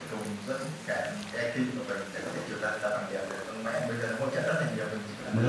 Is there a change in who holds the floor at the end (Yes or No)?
No